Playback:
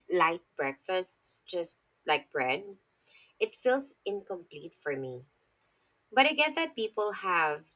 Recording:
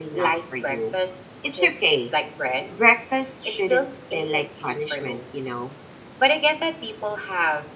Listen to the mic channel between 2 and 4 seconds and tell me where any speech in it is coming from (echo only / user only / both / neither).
both